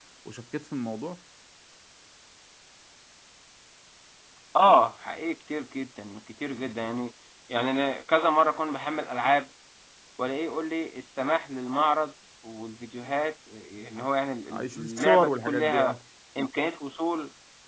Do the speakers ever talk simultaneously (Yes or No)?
Yes